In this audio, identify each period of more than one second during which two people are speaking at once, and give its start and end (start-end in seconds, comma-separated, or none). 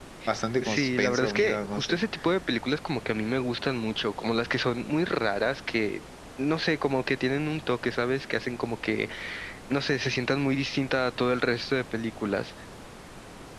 0.6-2.0